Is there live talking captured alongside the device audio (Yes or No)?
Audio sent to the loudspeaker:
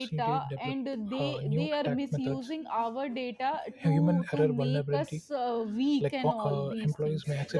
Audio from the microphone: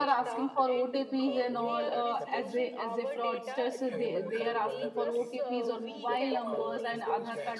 Yes